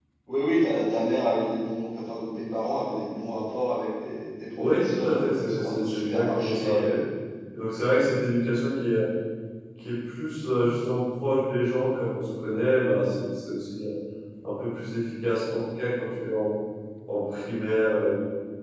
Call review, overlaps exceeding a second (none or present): present